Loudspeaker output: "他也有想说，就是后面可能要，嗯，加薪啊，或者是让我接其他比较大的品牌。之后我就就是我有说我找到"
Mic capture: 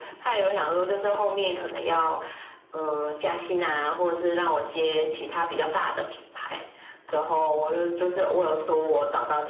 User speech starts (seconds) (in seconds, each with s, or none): none